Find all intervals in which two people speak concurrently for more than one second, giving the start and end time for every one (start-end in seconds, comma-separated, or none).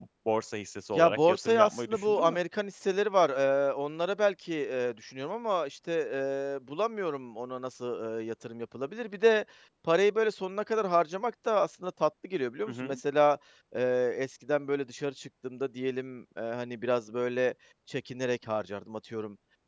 0.9-2.4